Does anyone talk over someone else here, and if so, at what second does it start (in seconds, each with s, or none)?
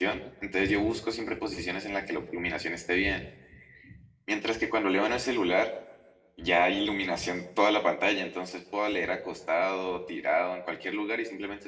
none